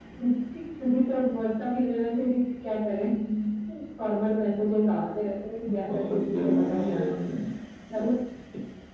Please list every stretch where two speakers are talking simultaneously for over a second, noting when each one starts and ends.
5.9-7.1

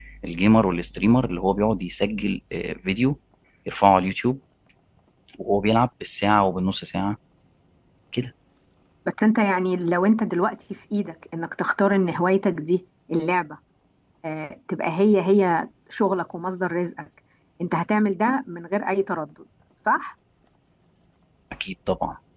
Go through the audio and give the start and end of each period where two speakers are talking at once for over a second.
none

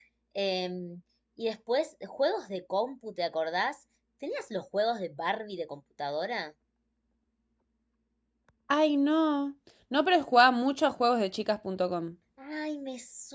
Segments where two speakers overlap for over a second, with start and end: none

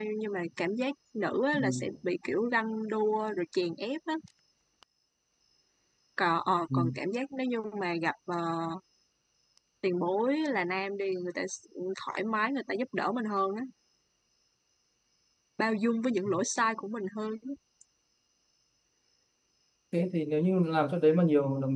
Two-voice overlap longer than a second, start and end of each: none

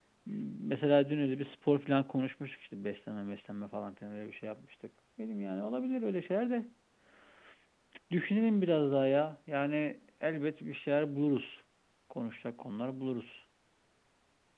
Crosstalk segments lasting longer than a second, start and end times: none

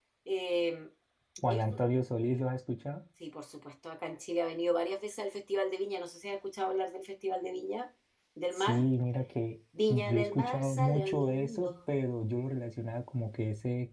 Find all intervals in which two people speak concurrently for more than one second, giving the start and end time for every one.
9.9-11.7

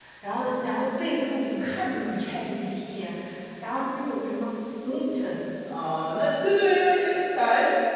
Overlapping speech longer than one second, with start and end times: none

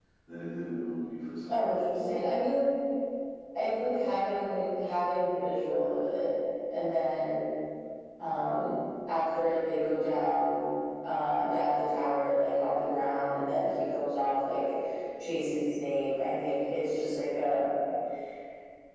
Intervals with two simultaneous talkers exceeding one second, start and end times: none

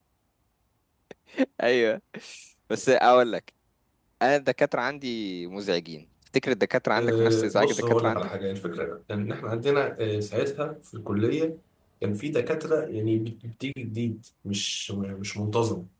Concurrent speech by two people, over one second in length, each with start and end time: 7.0-8.3

